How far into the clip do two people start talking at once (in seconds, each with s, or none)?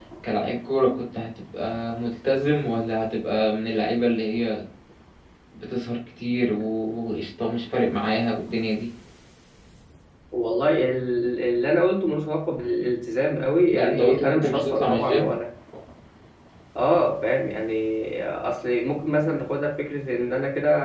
13.7 s